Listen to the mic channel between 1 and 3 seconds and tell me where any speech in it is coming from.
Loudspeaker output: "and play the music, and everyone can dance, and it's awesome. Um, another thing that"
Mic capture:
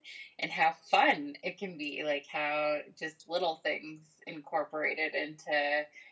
user only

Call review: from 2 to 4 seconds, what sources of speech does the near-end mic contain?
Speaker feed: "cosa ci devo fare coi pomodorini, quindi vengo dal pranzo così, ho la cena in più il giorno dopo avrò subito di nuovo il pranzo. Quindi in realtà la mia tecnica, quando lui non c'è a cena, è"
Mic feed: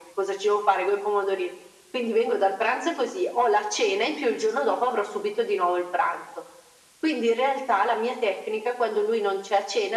echo only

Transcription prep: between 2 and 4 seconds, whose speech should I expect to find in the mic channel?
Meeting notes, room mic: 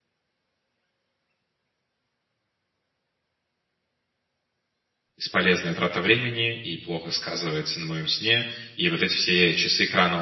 neither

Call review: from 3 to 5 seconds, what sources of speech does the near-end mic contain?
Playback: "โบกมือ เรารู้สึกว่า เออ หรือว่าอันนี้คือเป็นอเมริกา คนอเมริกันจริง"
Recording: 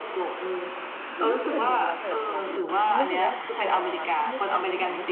both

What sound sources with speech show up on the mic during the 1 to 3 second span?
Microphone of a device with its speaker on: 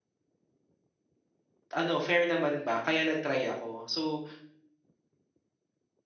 user only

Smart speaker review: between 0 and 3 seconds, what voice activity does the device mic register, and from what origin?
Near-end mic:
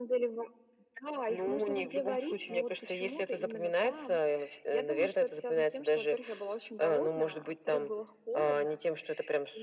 echo only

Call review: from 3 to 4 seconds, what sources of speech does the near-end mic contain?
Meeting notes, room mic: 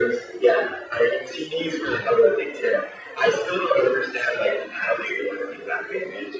echo only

